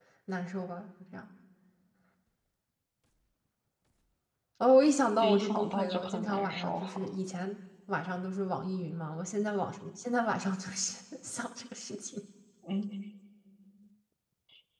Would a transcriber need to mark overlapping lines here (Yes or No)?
Yes